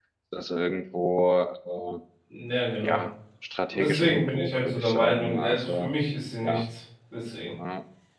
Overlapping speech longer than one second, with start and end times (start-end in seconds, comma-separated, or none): 3.7-5.9